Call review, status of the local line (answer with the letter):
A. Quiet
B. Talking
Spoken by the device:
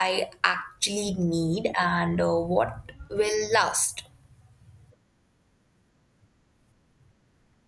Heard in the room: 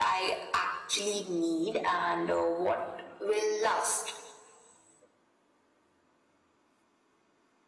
A